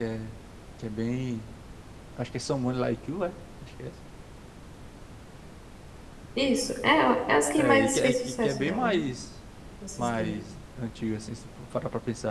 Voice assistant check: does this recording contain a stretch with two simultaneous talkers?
Yes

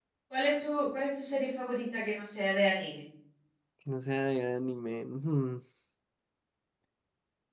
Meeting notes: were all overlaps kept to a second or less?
Yes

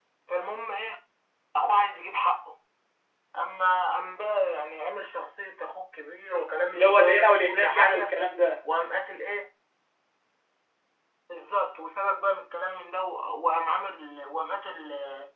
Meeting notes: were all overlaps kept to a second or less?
No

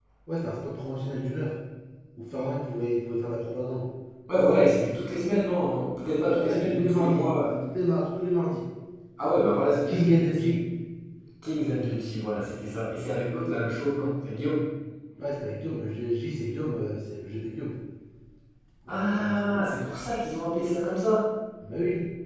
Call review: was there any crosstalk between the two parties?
Yes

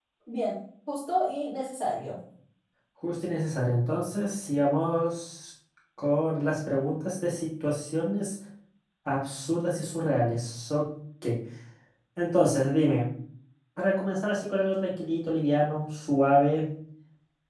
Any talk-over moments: No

